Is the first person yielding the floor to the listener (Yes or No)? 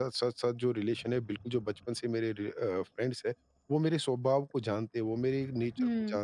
No